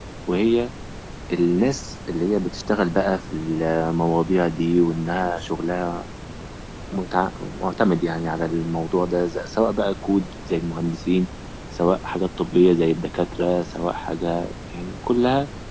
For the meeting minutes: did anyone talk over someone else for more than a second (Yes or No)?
No